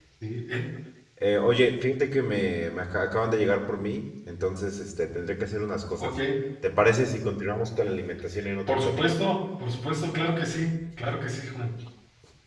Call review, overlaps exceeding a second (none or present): none